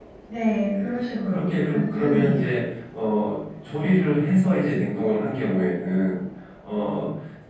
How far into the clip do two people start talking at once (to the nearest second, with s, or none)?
1 s